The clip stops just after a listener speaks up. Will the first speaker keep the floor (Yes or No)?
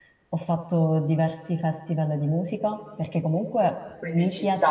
Yes